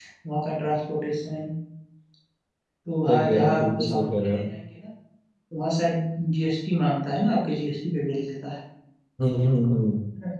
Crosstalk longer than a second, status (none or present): present